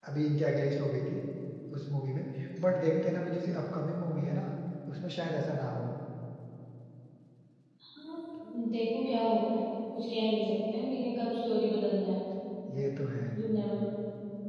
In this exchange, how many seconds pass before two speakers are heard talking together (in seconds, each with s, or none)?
none